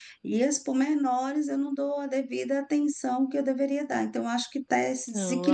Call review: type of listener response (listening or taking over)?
taking over